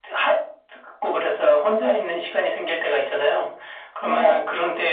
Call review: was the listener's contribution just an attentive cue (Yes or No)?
Yes